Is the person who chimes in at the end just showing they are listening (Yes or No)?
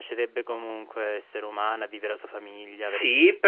No